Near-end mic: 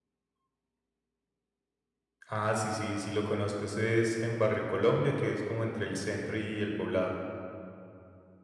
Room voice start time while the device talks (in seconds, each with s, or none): 2.3 s